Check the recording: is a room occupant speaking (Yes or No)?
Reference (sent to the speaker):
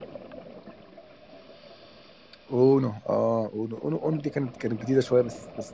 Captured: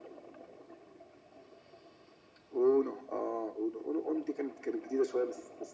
No